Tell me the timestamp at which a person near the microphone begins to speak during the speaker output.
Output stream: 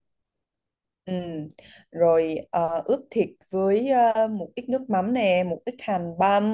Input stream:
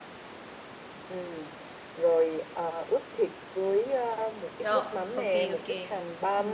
5 s

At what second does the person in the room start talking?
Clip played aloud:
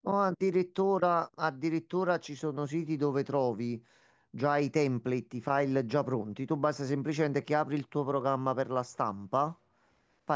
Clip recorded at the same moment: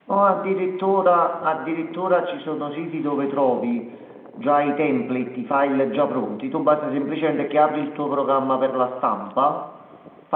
none

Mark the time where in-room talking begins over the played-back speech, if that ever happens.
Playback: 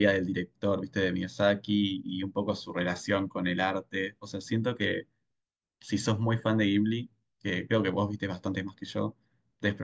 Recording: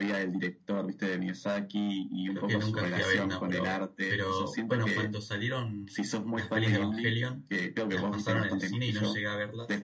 2 s

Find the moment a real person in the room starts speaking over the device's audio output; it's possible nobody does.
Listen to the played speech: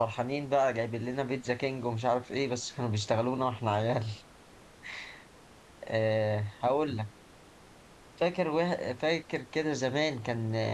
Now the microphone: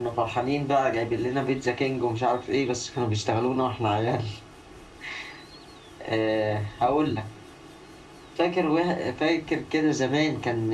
none

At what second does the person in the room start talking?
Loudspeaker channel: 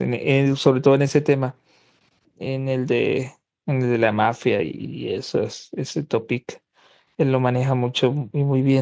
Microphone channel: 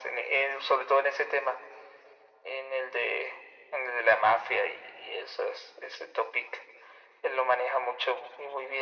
none

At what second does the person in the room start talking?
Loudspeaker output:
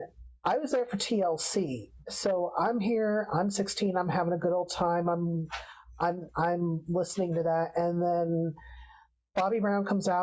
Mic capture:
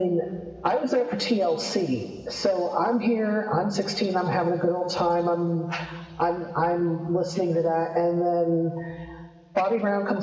none

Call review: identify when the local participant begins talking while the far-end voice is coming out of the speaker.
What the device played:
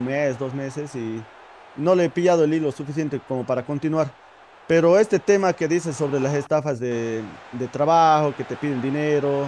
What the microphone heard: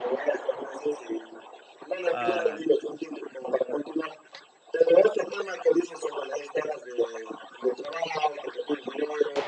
2 s

